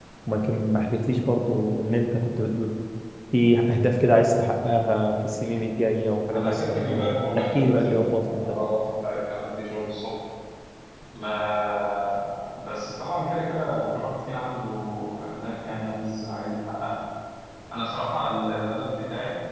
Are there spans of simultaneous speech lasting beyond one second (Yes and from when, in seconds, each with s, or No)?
Yes, from 6.3 s